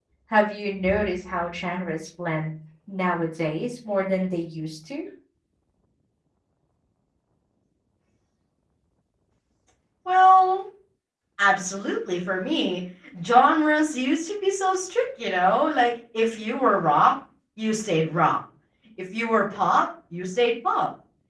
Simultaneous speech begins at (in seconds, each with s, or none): none